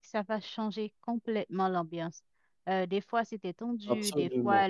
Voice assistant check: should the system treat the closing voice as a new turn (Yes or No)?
No